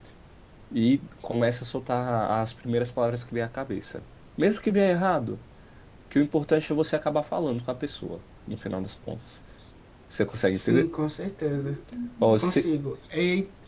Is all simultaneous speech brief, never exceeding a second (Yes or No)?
Yes